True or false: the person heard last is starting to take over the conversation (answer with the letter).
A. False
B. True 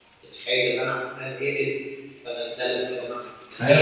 B